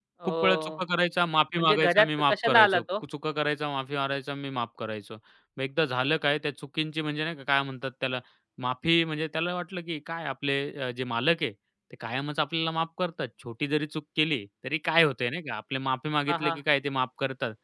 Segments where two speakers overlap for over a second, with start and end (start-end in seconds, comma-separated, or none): 1.6-2.8